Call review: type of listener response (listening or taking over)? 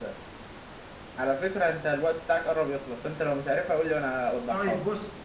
taking over